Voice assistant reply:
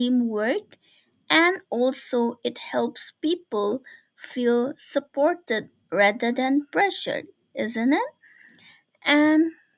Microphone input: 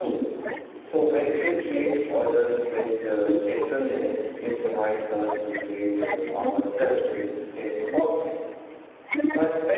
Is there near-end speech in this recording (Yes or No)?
Yes